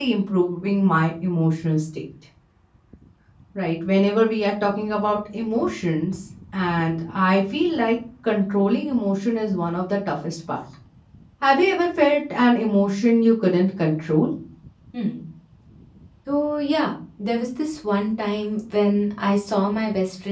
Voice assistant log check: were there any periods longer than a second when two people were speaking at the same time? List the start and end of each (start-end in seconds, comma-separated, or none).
none